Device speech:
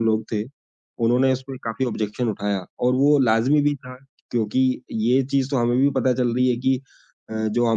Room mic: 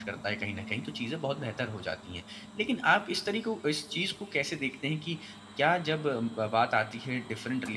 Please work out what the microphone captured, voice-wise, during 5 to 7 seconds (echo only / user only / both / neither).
user only